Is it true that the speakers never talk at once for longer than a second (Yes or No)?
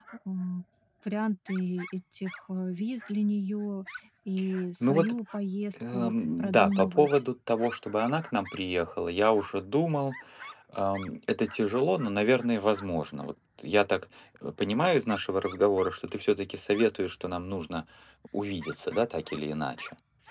No